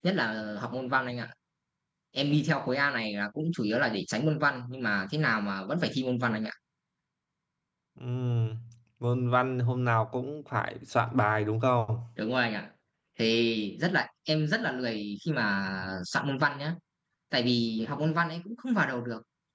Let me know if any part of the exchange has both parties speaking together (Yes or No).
No